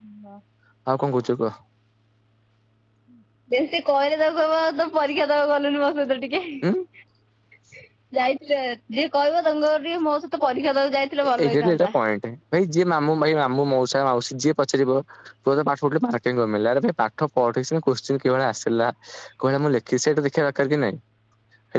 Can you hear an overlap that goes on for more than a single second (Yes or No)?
No